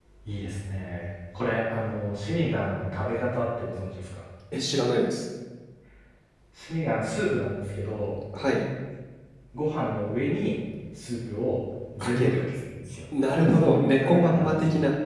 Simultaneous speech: Yes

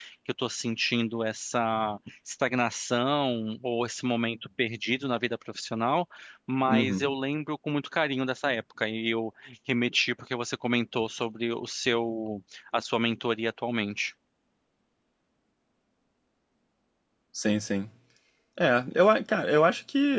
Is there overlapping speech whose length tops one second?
No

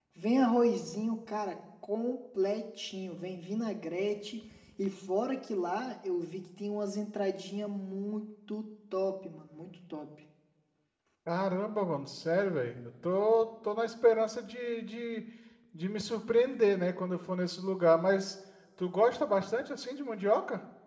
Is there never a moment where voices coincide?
Yes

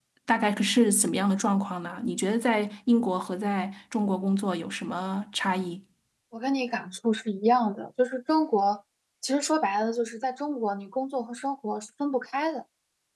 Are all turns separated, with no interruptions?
Yes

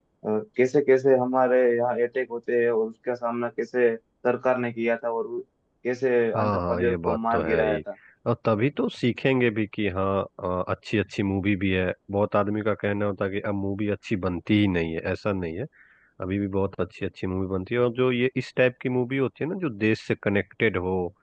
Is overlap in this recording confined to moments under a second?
No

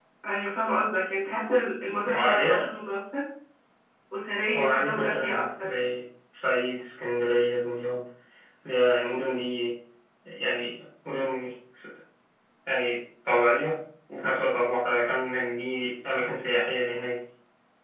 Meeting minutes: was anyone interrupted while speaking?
Yes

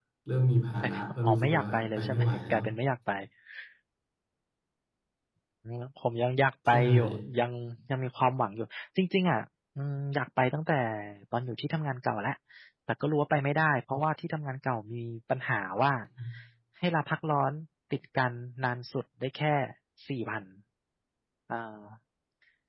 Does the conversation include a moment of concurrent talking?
Yes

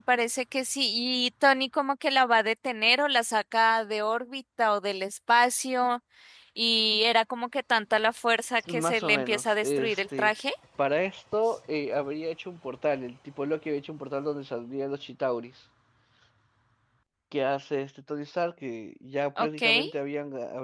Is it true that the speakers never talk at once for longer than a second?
No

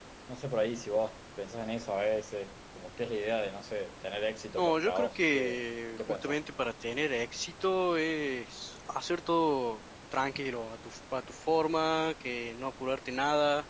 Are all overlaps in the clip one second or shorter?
No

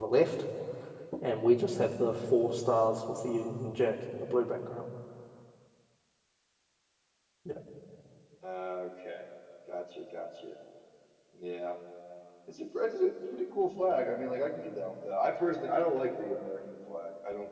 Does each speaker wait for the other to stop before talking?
Yes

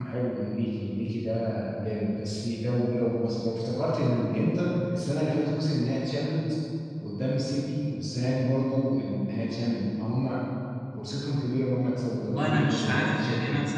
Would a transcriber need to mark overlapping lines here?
Yes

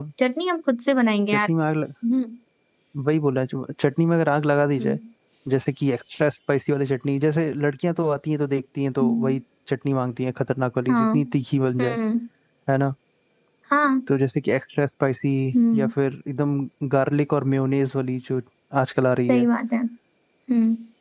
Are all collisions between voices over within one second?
Yes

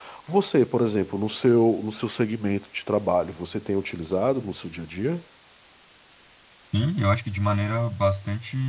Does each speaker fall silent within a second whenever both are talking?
Yes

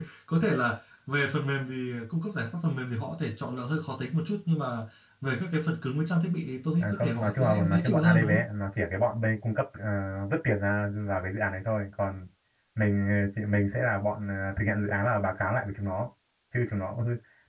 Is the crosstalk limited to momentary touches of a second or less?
No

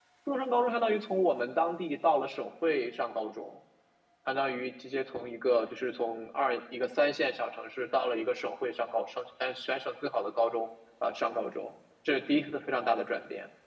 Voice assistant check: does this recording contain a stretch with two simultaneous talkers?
No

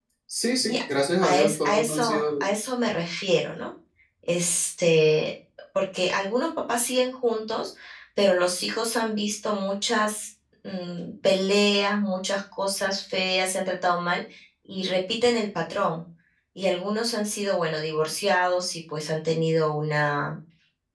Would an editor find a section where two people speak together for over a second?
Yes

